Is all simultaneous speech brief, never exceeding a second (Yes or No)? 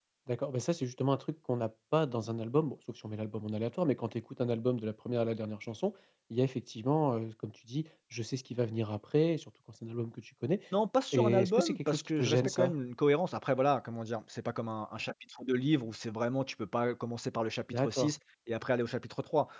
No